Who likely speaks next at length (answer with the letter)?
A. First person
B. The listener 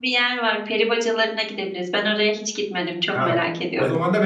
B